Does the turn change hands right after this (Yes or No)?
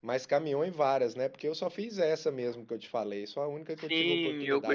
Yes